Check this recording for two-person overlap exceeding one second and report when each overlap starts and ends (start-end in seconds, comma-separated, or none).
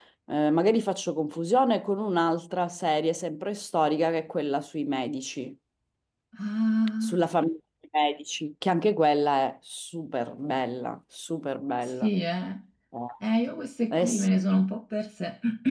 none